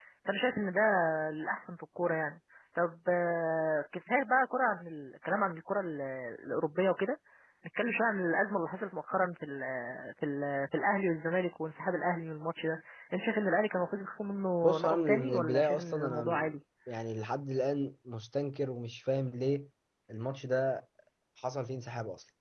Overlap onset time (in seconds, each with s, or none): 14.6 s